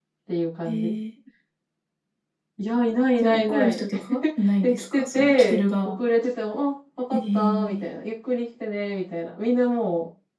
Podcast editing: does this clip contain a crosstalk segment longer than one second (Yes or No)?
Yes